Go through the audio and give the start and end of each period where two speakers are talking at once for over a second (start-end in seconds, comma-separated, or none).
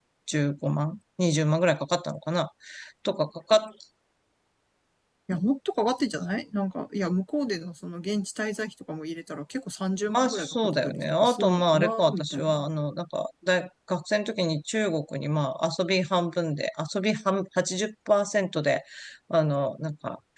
10.1-12.7